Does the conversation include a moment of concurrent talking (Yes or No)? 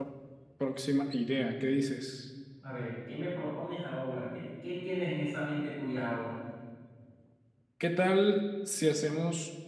No